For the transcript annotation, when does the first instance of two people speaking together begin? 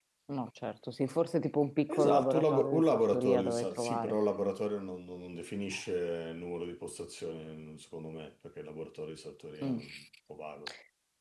1.9 s

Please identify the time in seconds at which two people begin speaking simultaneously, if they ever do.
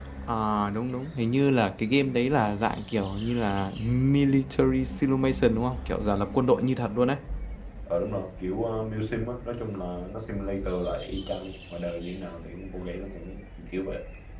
none

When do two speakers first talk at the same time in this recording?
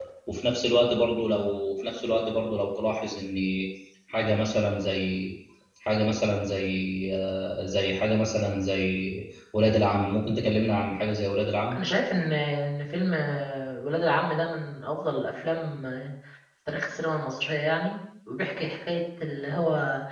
none

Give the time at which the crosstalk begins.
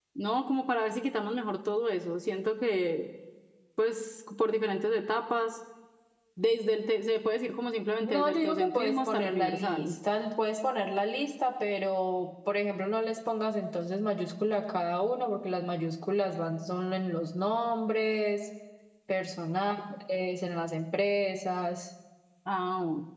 8.0 s

